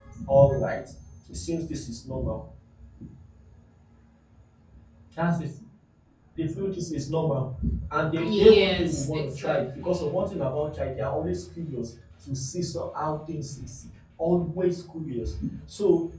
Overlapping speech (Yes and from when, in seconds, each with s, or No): Yes, from 8.2 s